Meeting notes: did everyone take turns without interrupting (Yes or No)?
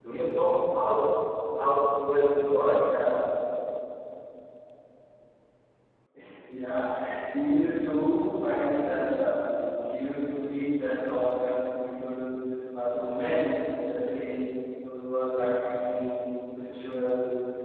Yes